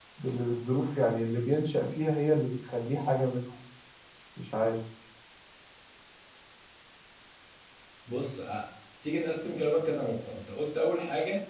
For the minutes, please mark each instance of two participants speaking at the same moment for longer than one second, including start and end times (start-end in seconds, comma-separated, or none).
none